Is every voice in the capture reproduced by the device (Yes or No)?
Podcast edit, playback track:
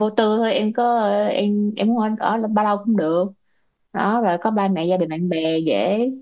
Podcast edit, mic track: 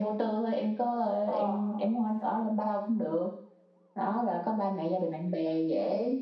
No